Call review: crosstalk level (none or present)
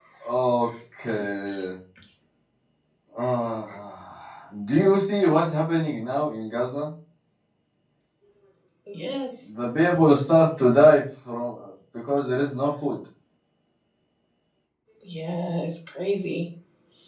none